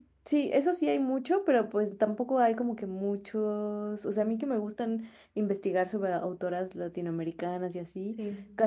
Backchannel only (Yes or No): Yes